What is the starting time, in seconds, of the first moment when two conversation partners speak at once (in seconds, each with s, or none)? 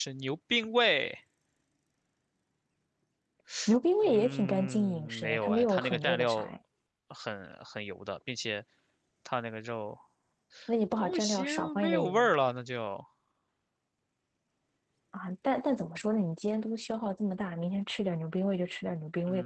4.0 s